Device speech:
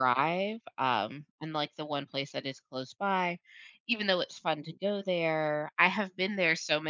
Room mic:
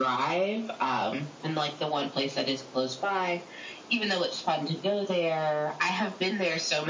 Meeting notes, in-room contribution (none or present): none